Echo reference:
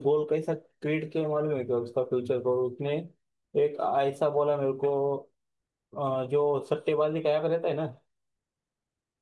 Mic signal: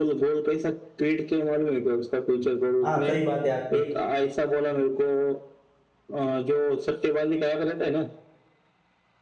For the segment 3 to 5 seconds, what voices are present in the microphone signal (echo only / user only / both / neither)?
both